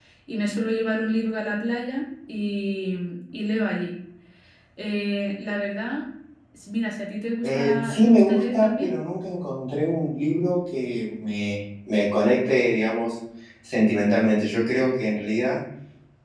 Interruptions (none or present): present